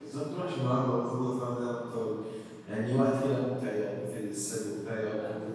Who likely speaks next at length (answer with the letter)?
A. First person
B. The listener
B